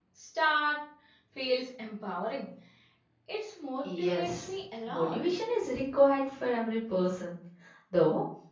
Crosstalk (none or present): present